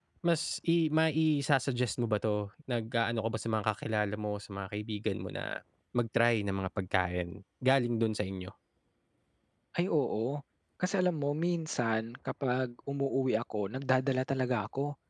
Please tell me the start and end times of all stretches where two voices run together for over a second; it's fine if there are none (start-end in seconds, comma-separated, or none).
none